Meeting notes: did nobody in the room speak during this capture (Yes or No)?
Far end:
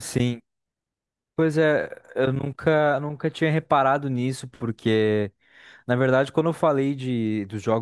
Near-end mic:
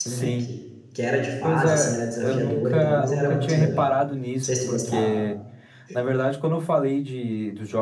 No